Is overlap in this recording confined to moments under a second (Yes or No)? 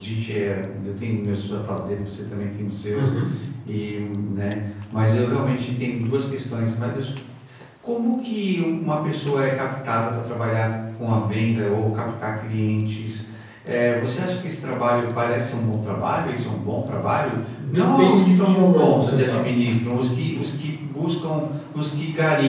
No